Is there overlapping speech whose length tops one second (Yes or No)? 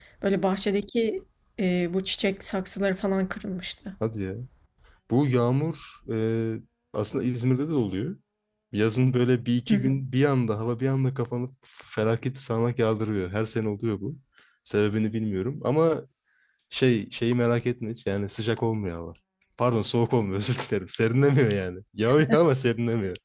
No